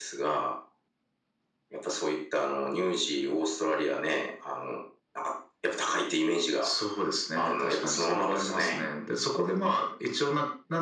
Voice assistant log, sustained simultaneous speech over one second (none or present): present